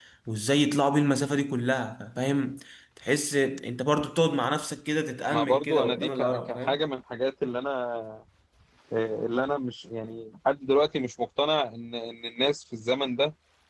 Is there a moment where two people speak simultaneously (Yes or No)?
Yes